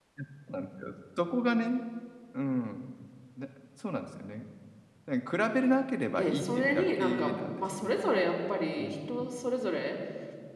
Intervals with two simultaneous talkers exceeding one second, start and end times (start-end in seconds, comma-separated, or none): 6.2-7.9